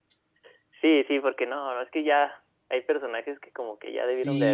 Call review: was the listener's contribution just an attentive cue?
No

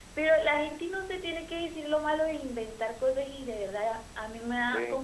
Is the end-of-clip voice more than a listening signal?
No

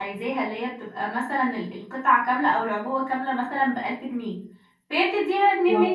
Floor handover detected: No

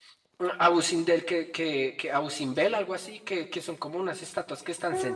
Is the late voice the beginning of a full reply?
Yes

